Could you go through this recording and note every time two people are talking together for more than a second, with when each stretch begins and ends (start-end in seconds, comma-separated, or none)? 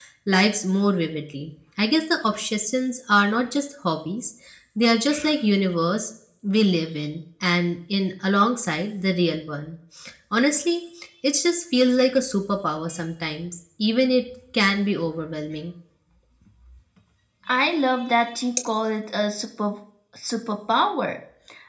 none